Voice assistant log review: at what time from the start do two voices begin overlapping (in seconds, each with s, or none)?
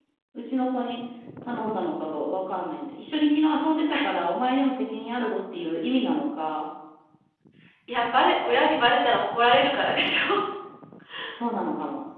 none